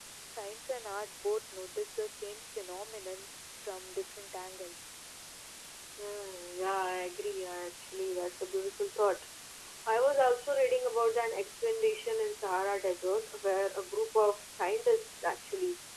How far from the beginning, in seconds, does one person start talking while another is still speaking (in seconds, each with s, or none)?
none